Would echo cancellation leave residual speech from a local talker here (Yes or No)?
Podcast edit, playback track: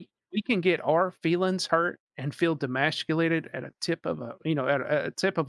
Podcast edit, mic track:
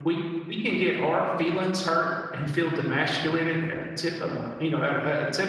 No